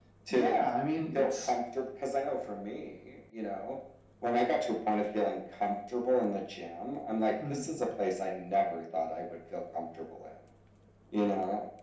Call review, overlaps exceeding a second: none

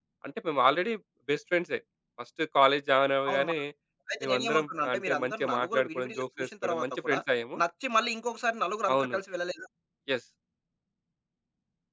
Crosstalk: present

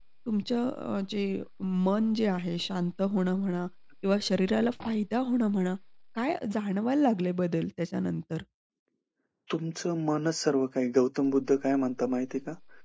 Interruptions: none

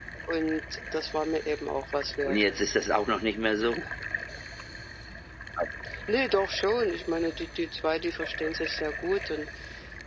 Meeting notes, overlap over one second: none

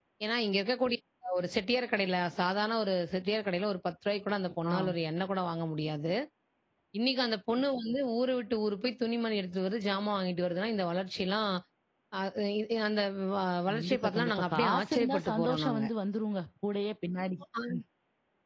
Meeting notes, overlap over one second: present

